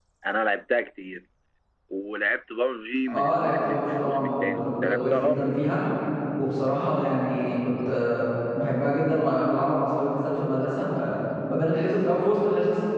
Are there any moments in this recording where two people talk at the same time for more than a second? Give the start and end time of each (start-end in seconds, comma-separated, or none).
3.1-5.6